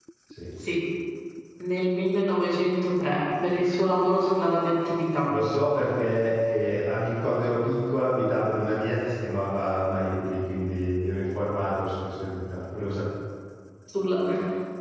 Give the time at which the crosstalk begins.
none

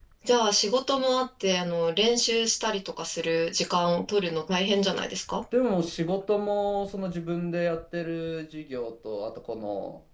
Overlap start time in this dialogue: none

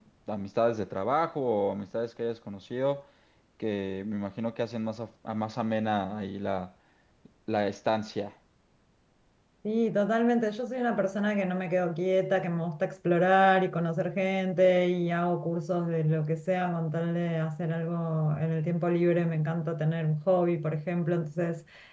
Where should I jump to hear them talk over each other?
none

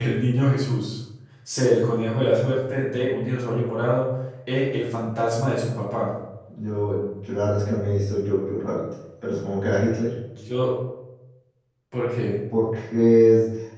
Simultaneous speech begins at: none

